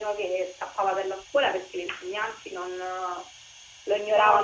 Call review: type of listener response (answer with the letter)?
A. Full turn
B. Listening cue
A